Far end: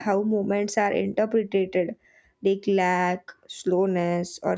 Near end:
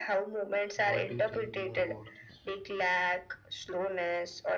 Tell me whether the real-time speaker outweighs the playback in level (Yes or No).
No